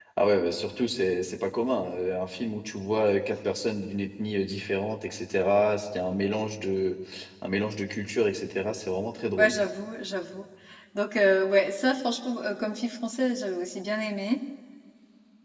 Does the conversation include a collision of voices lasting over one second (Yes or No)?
No